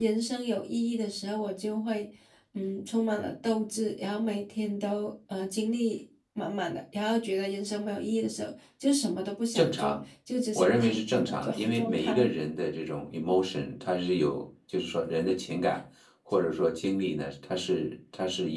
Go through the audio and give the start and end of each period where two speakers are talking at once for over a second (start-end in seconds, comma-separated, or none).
10.6-12.3